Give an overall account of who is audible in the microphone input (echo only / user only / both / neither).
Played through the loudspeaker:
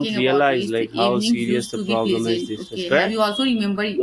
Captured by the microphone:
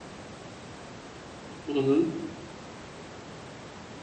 user only